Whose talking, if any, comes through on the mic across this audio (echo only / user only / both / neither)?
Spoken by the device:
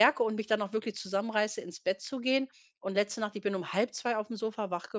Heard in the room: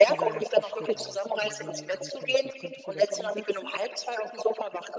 both